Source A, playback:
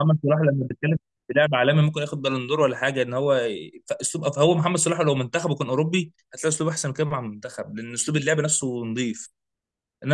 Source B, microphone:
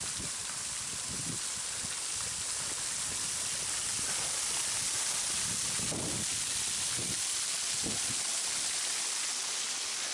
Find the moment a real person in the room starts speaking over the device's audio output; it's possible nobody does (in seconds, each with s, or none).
none